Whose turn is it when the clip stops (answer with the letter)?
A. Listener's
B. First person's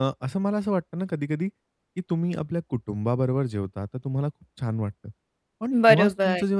B